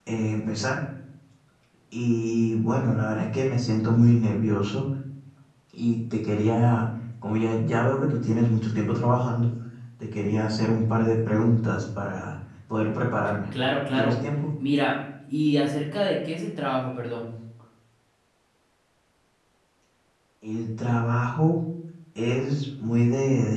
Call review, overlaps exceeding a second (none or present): none